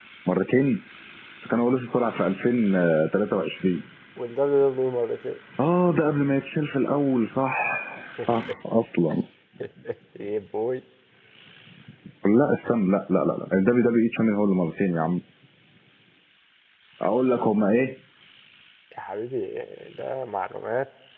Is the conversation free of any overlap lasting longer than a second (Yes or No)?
Yes